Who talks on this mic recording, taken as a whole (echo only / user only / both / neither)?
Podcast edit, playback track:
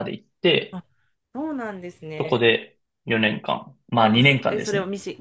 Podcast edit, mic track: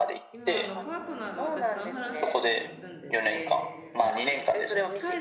both